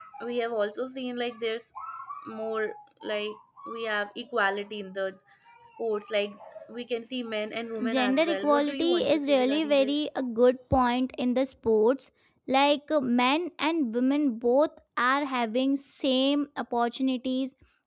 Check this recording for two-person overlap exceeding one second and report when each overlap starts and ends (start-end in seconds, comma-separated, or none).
7.9-10.0